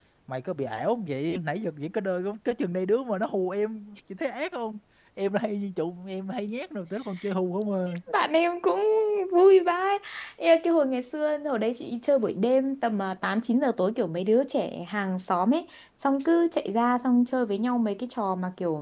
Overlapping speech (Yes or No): No